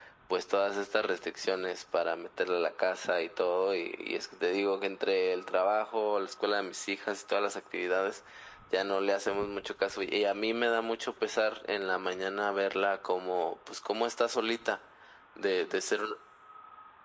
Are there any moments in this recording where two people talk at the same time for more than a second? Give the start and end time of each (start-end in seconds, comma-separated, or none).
none